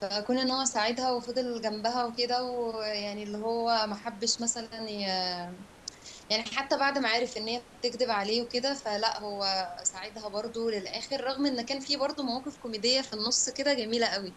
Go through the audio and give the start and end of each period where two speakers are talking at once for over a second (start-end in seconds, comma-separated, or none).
none